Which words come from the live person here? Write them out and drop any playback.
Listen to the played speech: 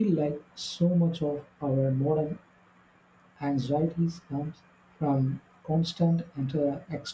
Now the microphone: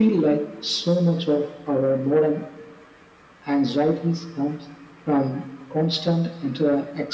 none

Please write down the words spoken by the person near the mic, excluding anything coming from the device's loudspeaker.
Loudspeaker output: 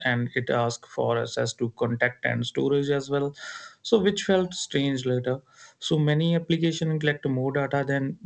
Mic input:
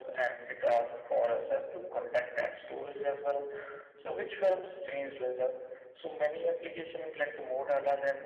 none

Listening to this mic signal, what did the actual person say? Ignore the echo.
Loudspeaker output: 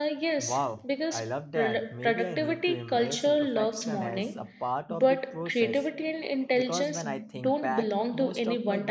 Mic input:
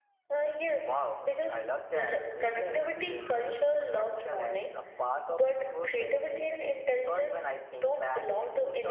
none

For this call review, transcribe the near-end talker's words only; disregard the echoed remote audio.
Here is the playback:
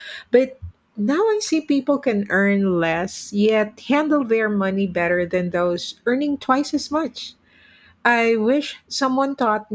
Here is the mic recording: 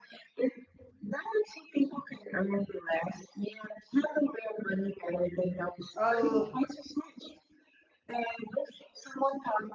I'll

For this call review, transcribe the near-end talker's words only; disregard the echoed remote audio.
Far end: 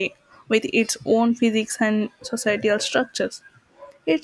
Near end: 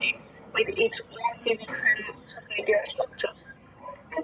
none

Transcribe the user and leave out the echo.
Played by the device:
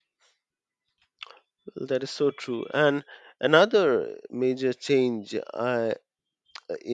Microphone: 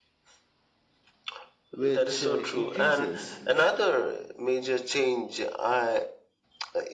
which uh, increases

